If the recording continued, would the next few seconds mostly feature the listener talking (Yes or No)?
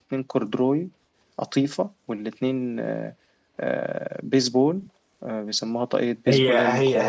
Yes